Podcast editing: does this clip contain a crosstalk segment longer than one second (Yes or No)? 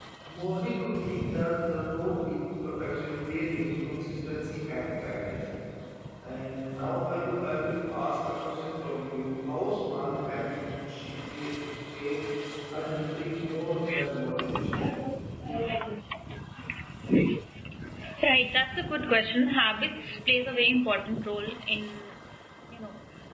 No